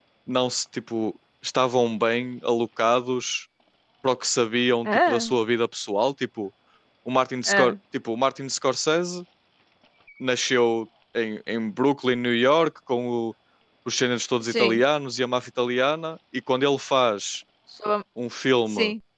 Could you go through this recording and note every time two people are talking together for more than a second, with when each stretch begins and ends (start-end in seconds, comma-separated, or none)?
none